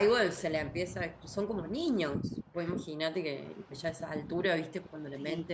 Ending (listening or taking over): listening